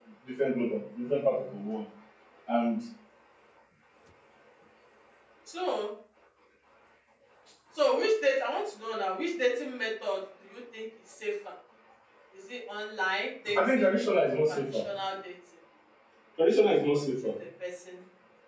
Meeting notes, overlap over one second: present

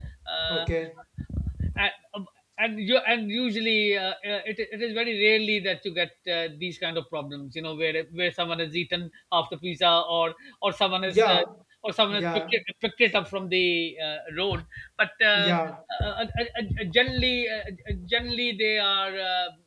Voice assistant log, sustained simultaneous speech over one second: none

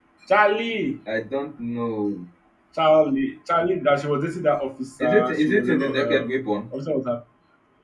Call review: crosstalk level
present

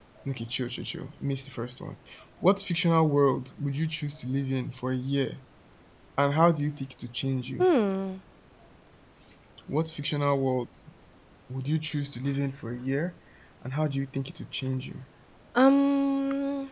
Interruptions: none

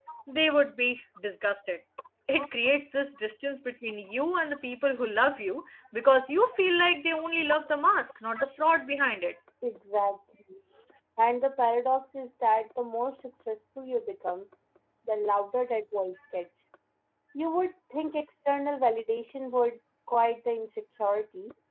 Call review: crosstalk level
none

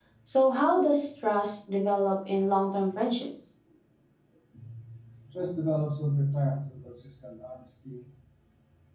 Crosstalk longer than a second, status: none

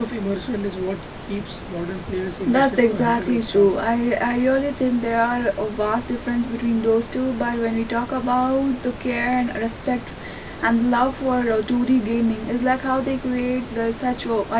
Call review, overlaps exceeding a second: present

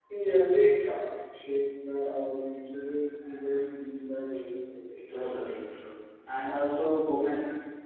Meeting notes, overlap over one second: none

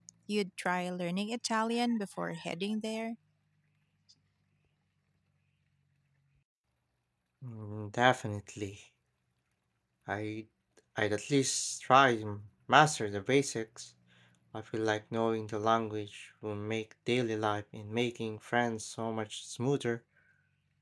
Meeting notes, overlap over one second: none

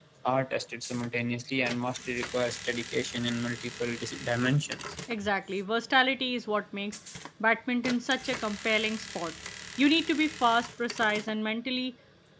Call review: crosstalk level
none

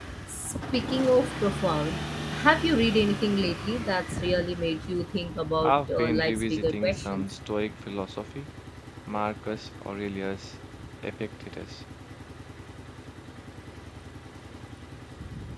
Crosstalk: present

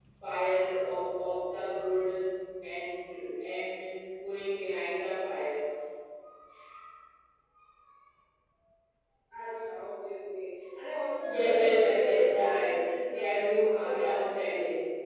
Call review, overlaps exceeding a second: present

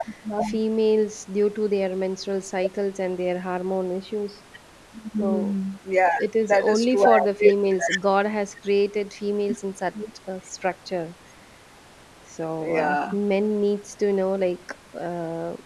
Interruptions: present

